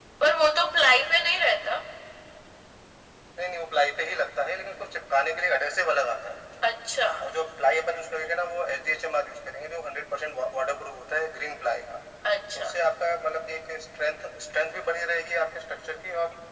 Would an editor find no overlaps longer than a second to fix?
Yes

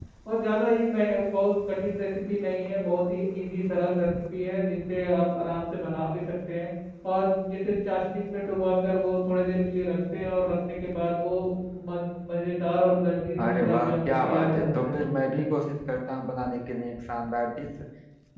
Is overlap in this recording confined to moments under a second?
No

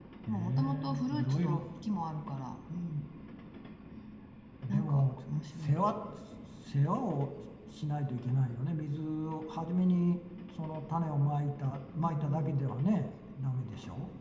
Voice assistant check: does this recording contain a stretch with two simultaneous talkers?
Yes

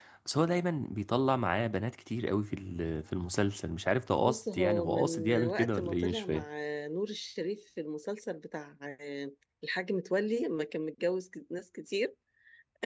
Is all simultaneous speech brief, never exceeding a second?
No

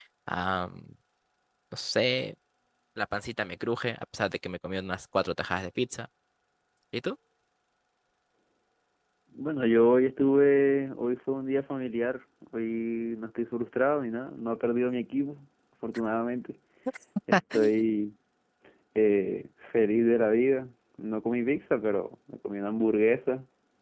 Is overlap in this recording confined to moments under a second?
Yes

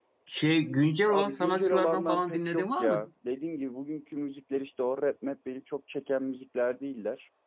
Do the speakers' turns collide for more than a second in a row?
Yes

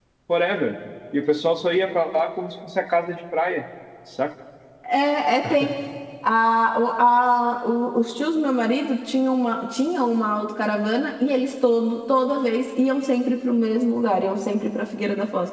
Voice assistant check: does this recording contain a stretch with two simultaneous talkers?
No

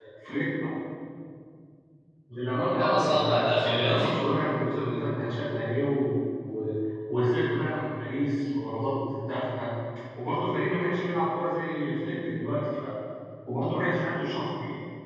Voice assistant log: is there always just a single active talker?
No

